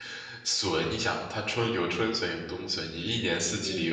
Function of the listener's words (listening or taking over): listening